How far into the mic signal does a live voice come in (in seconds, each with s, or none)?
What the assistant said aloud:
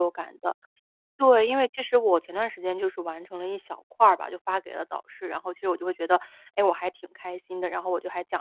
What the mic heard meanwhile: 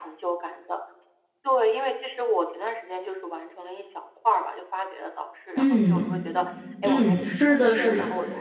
5.6 s